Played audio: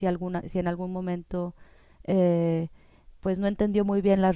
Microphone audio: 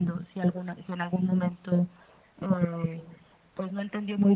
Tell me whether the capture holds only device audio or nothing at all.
Yes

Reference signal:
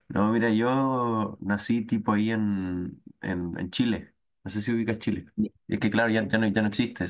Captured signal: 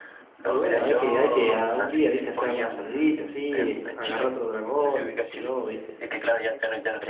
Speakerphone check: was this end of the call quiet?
No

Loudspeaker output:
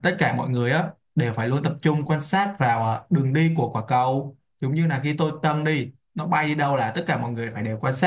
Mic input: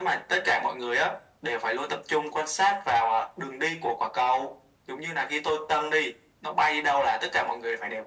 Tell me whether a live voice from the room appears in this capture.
No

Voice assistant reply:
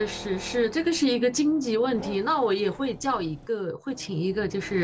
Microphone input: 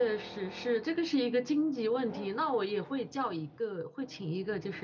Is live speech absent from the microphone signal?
Yes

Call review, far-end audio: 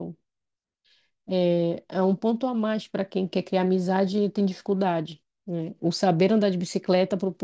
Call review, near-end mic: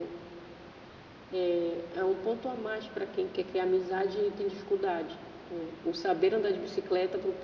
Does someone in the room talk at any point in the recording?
No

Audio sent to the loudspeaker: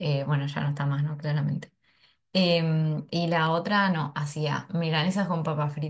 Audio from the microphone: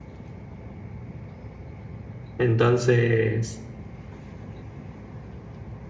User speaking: Yes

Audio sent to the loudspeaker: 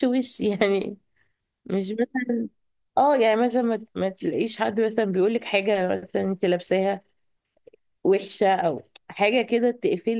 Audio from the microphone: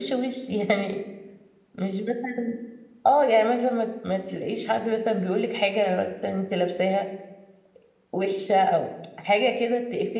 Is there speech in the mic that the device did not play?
No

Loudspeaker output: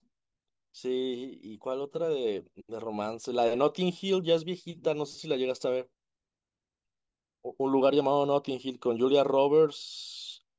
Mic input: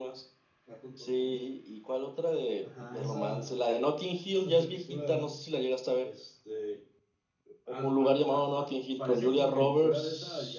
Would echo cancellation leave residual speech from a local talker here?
Yes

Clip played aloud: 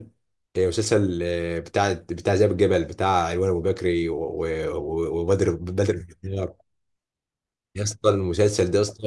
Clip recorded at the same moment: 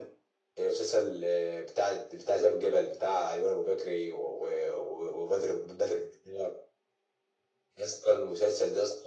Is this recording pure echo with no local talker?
Yes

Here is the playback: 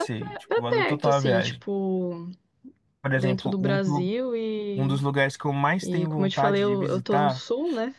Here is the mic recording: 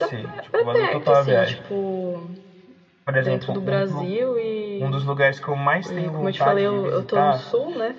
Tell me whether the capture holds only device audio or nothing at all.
Yes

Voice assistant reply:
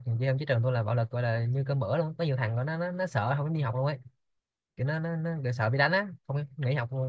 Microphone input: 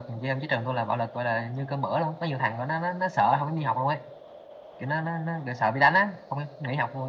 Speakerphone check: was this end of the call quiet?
Yes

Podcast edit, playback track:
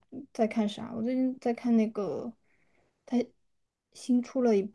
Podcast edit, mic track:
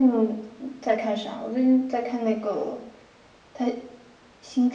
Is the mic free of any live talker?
Yes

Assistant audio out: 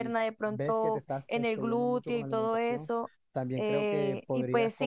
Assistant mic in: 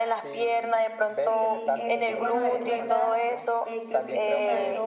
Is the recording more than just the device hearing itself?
Yes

